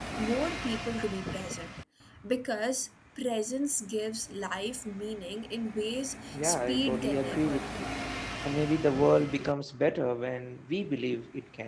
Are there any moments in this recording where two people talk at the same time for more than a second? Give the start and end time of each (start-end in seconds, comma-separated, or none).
6.3-7.6